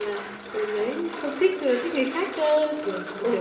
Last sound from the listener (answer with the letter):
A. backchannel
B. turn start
B